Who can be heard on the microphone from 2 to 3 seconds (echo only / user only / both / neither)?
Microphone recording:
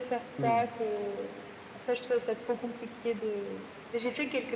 echo only